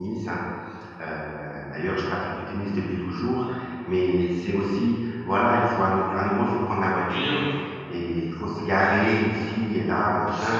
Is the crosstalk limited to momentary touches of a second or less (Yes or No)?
Yes